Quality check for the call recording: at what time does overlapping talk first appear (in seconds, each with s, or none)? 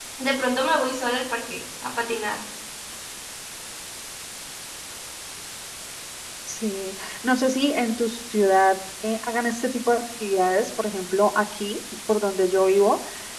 none